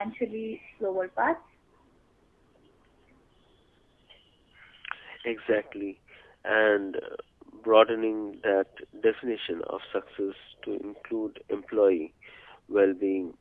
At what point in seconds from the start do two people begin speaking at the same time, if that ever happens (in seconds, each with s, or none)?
none